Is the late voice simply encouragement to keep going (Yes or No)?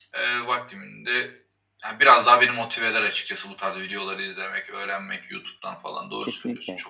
No